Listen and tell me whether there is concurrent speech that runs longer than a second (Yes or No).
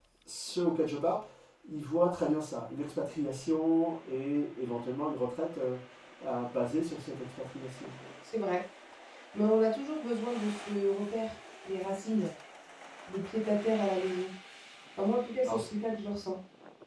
No